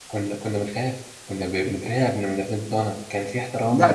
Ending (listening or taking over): taking over